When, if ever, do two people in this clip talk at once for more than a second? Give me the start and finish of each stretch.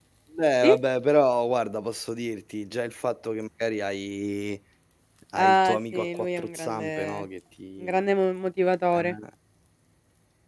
5.3-7.2

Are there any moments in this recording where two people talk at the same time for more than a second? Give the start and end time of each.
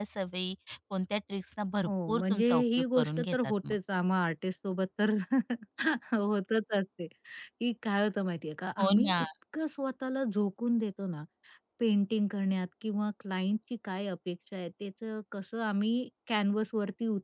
1.8-3.8

